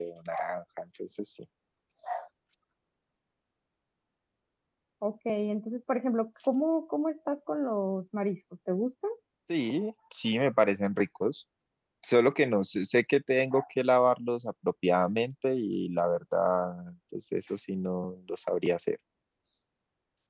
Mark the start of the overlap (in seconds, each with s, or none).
none